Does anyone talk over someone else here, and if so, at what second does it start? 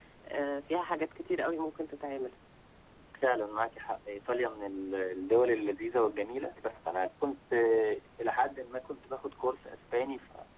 none

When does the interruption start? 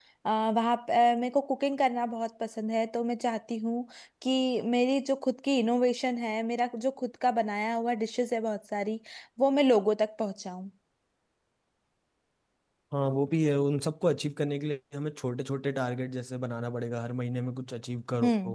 none

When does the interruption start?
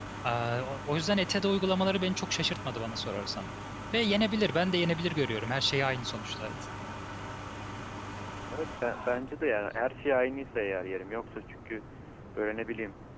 none

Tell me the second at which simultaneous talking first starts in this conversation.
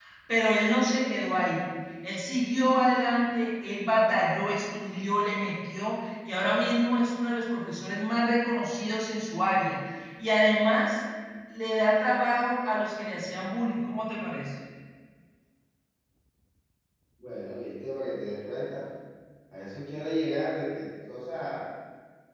none

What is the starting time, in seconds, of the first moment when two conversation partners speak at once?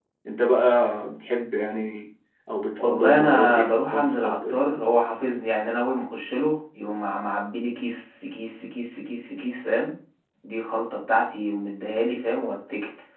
2.8 s

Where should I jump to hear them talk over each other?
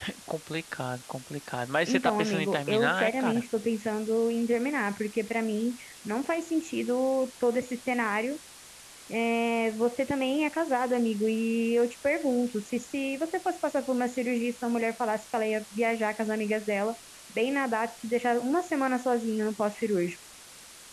1.9 s

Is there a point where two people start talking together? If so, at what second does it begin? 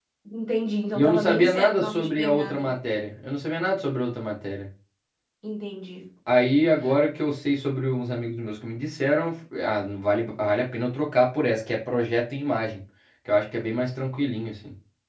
1.0 s

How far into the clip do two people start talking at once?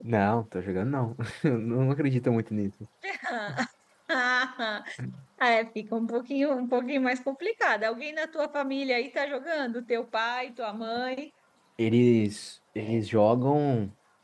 none

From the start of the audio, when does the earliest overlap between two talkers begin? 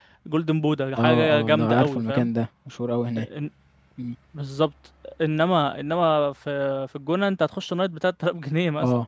1.0 s

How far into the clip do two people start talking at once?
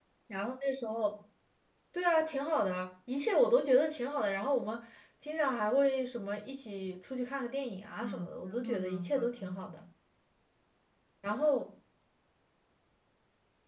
8.0 s

